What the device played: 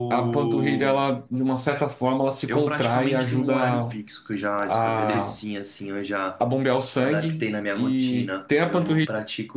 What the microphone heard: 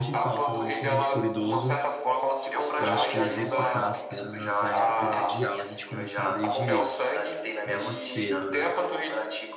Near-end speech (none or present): present